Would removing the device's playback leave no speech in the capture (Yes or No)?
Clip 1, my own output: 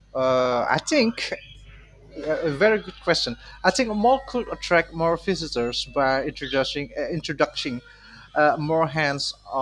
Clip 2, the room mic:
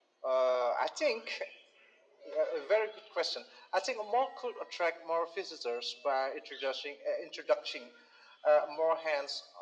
Yes